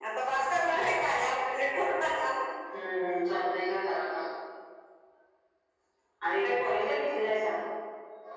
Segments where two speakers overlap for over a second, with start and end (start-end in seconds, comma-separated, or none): none